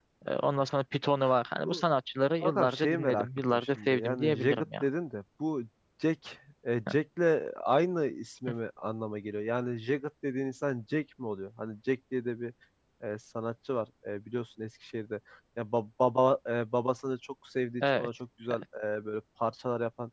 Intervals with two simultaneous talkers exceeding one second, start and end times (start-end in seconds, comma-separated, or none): 2.4-4.8